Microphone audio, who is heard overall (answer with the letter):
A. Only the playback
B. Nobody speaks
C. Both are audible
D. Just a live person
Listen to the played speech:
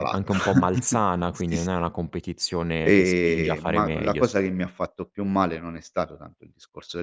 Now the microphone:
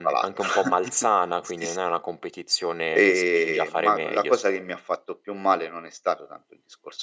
A